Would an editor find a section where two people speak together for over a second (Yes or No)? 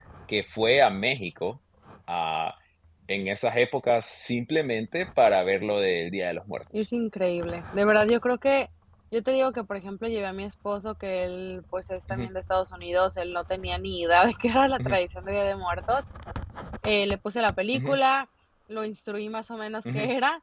No